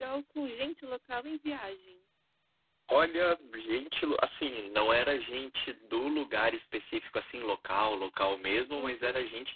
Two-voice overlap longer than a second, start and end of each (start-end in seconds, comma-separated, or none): none